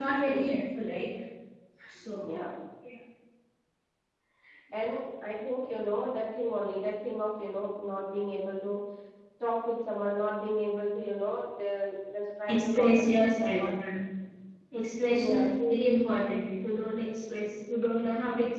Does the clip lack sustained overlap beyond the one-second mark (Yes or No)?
No